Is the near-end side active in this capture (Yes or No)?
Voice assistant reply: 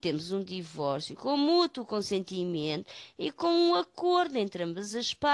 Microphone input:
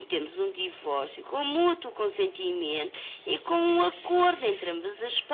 No